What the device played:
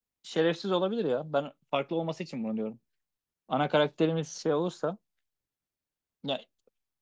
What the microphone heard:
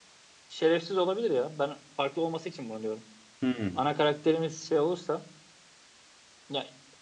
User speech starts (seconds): 3 s

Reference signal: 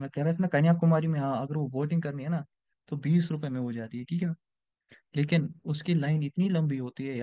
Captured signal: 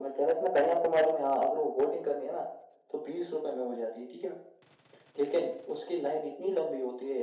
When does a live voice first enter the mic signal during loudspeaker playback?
none

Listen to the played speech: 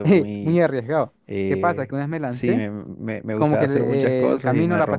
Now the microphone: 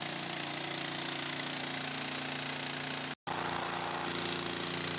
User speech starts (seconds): none

